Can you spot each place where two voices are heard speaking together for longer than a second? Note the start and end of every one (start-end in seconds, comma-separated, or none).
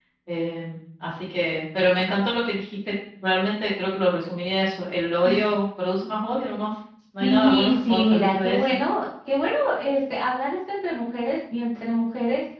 7.2-8.6